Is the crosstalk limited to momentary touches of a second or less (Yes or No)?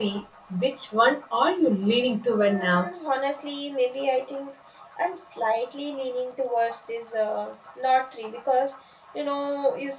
Yes